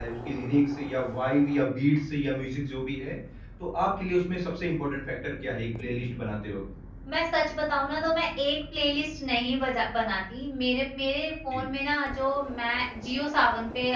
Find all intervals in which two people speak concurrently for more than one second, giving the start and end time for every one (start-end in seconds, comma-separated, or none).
none